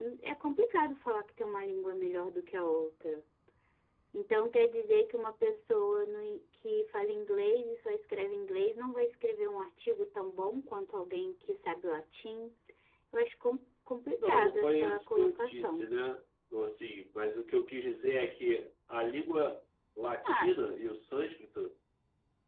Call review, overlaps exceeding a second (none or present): present